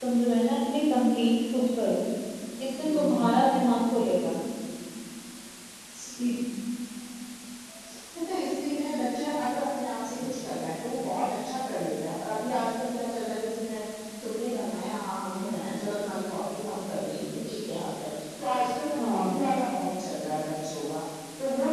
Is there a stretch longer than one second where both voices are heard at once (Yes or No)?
No